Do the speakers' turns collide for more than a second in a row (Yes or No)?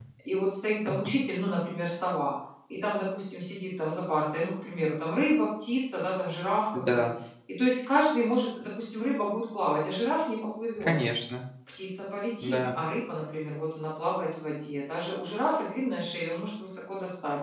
No